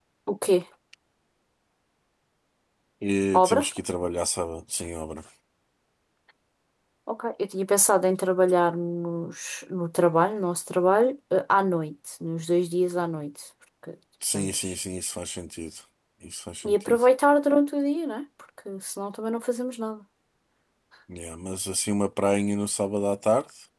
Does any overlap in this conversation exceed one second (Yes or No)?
No